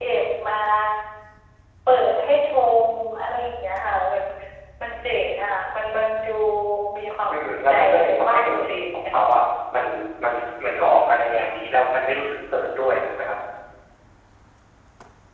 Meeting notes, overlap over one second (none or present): present